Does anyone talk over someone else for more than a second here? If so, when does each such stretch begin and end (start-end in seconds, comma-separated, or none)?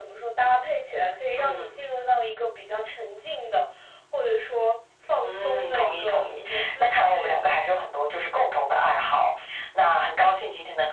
5.2-7.5